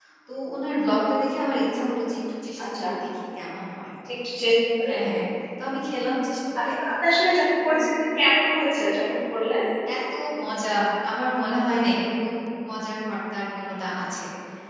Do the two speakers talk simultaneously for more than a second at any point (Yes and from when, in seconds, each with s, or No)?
No